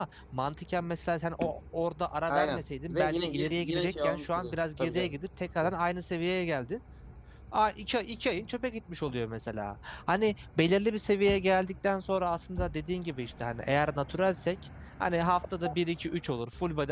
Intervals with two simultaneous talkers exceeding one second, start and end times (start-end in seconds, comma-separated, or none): 2.3-5.2